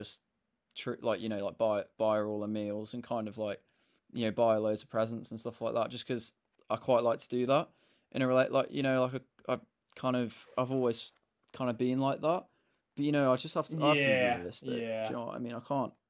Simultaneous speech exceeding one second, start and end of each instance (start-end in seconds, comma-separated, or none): 13.7-15.2